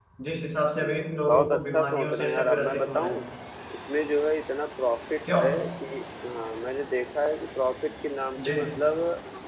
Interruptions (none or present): present